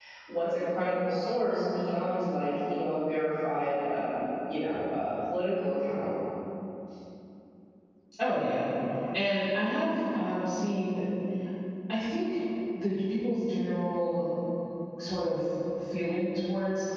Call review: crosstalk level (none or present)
none